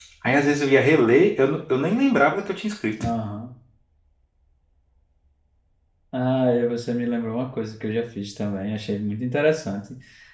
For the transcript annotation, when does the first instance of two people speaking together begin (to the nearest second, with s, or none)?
none